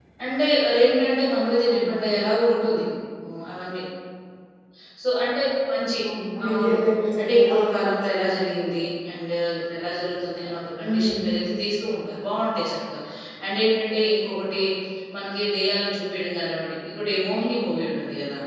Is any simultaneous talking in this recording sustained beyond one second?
Yes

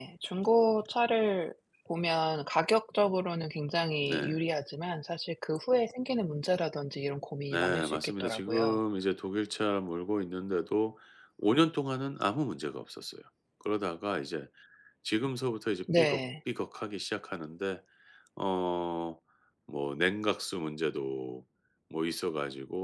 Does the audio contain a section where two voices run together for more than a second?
Yes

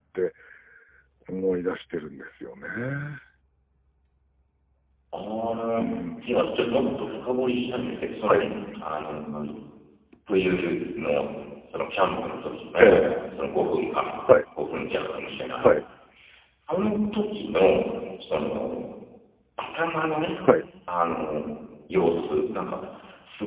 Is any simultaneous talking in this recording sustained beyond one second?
No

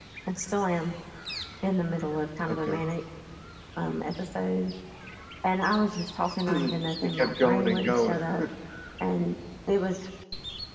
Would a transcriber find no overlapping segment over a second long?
No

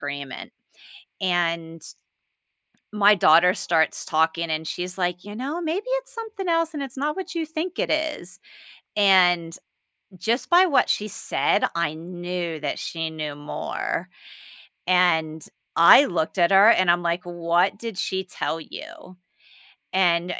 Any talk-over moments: No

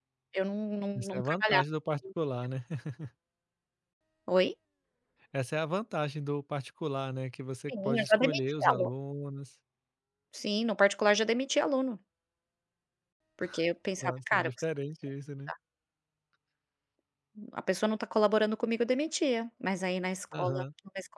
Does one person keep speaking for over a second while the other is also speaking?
Yes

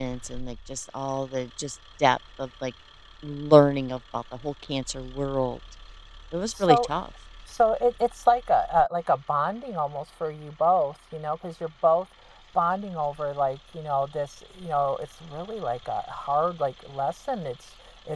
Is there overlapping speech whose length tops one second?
No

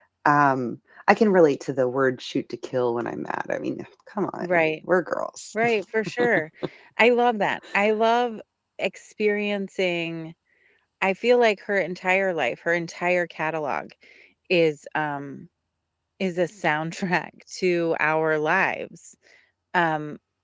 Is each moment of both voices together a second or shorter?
Yes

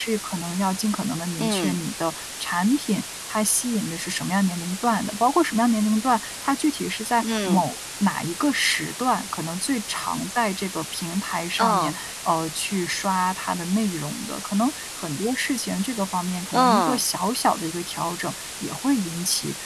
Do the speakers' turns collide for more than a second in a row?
No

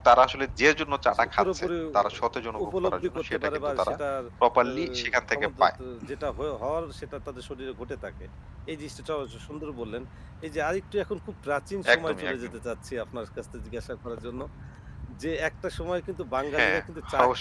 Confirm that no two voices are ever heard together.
No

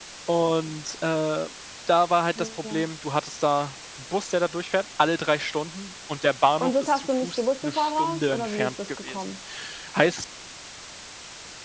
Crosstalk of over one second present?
Yes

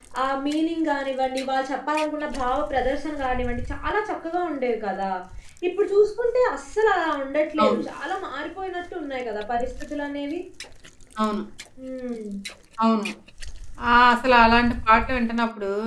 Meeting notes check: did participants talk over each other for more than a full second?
No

